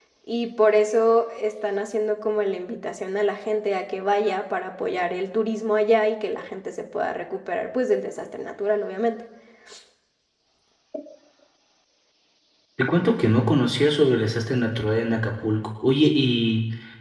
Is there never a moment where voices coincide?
Yes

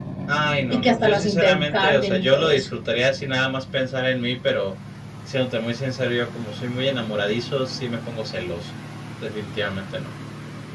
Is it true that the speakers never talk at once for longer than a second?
No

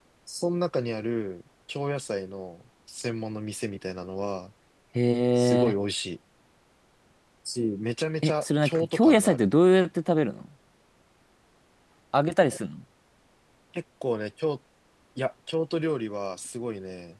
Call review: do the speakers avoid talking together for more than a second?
No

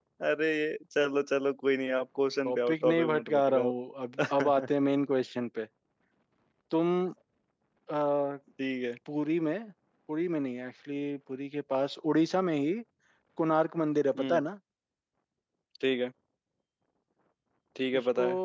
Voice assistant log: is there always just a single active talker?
No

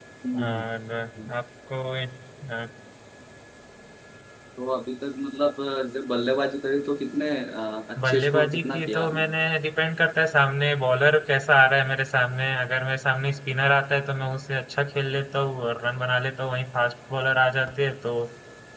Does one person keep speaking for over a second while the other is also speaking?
Yes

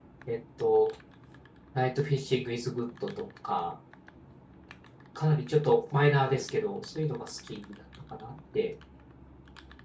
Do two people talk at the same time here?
No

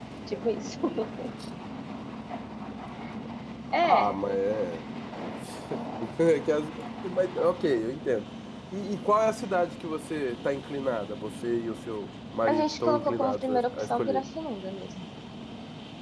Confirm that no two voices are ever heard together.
No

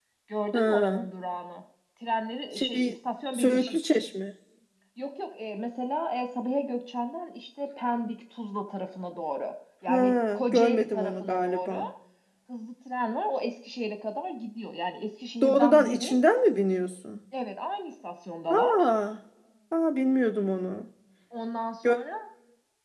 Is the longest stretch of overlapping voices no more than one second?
No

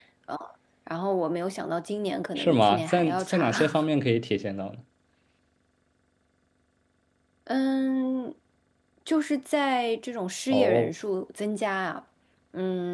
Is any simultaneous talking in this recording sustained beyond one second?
Yes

